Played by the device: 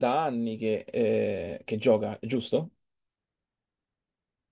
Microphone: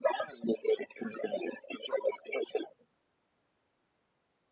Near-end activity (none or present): none